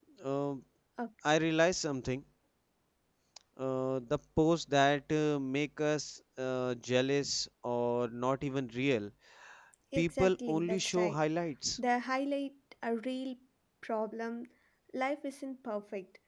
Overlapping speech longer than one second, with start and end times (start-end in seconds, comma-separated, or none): 10.0-11.2